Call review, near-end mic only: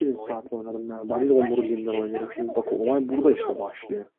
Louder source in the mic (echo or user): user